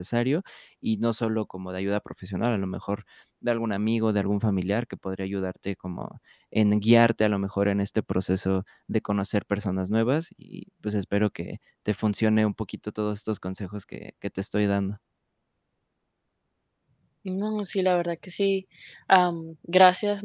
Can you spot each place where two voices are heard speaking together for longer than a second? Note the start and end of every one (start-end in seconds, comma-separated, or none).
none